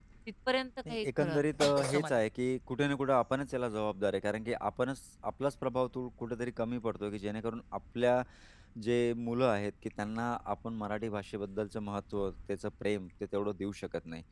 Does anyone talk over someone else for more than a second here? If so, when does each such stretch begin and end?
0.9-2.2

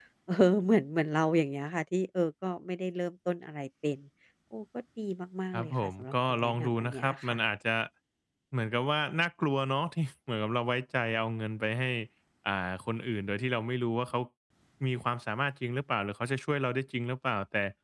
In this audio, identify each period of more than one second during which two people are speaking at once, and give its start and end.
5.5-7.4

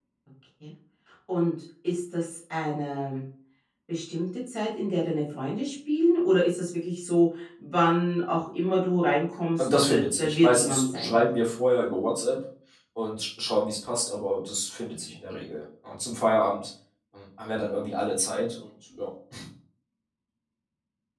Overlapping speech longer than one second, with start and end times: 9.6-11.2

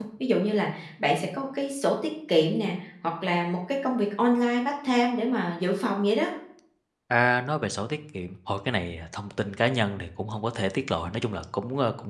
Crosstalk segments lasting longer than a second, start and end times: none

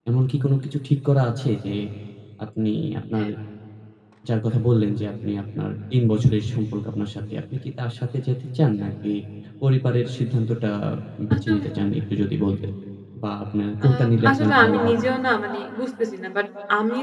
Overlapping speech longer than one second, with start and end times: 13.8-15.0

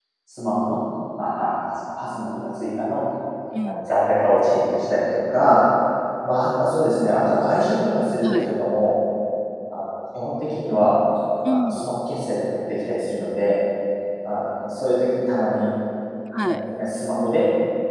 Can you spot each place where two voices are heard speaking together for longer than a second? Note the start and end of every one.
none

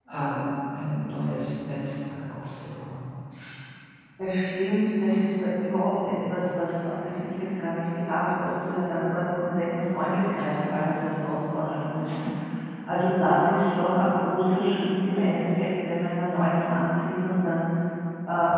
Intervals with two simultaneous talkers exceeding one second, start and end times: none

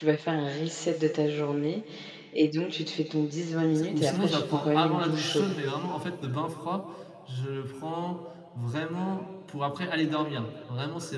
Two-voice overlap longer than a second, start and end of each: 3.8-5.5

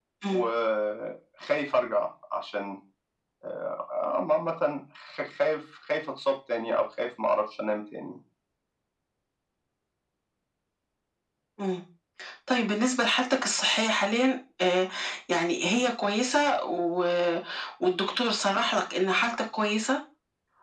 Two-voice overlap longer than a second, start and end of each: none

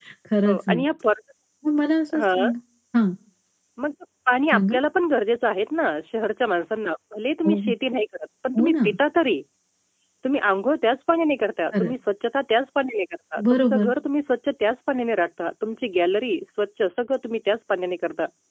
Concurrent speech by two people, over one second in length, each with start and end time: none

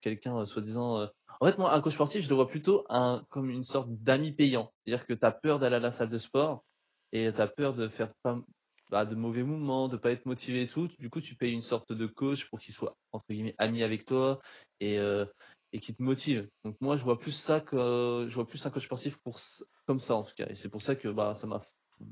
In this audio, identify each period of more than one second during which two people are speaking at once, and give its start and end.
none

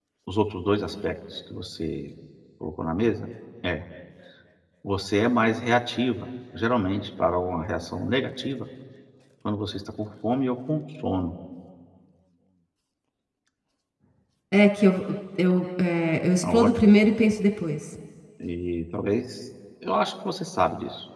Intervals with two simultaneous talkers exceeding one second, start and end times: none

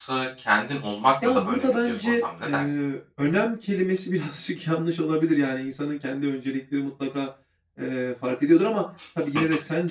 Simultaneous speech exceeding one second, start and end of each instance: 1.2-2.8

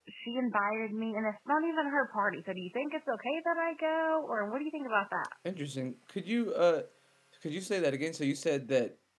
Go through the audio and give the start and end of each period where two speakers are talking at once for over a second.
none

